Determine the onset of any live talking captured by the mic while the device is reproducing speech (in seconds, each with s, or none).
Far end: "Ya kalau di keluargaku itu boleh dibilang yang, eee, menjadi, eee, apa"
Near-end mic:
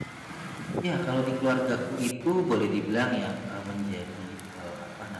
none